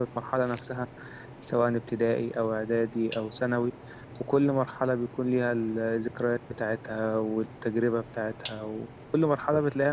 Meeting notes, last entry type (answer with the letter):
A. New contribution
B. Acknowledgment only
A